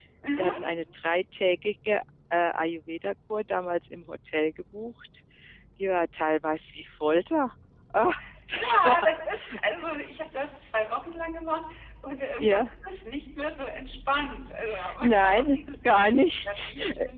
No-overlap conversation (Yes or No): No